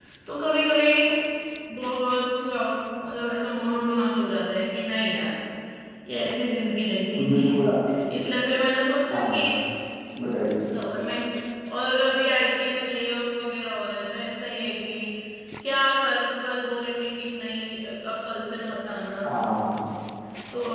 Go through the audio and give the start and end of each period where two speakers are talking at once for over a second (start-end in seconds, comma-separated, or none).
none